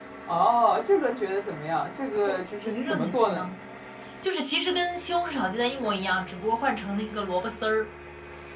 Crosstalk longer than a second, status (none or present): present